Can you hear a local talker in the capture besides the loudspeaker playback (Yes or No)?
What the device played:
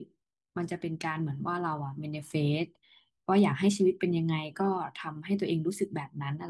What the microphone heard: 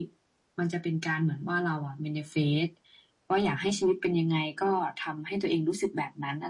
No